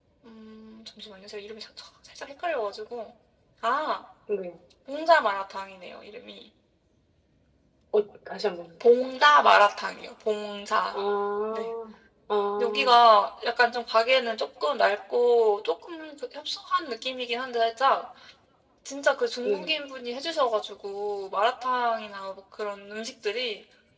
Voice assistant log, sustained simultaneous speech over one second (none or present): none